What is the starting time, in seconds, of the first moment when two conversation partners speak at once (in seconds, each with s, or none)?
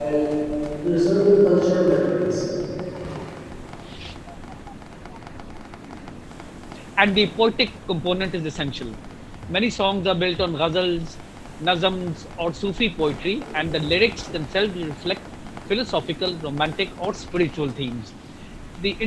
none